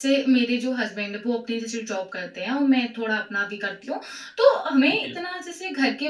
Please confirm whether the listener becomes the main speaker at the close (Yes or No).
No